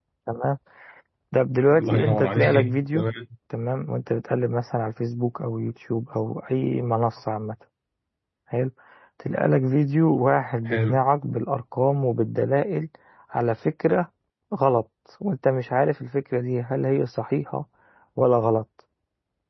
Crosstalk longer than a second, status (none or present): present